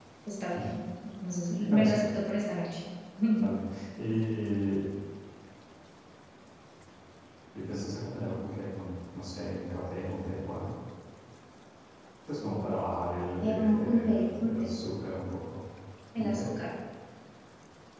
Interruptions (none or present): present